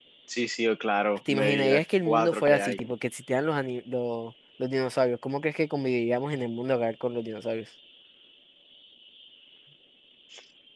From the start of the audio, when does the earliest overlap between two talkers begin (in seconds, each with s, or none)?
1.3 s